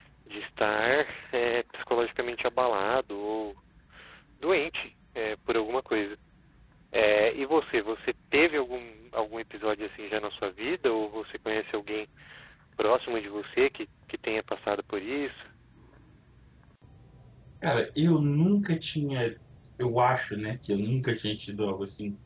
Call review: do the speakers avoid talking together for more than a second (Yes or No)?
Yes